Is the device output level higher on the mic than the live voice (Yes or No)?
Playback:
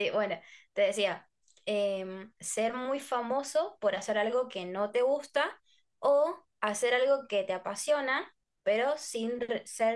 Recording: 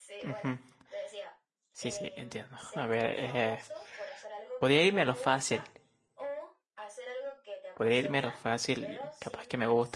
No